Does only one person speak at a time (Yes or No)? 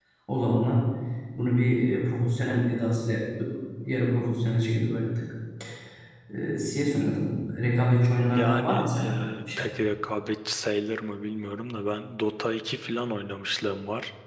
No